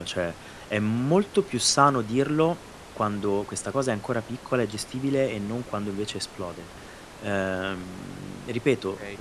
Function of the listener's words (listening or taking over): listening